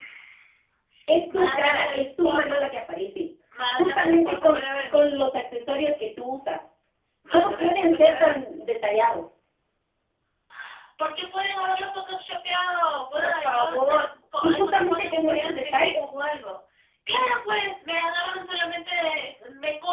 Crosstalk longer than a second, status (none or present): present